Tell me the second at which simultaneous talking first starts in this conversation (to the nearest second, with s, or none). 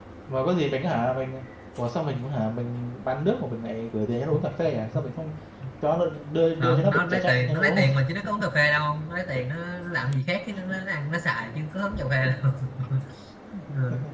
7 s